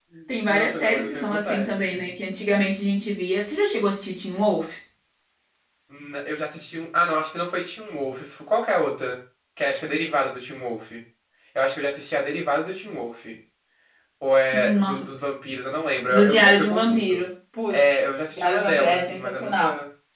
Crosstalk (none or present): present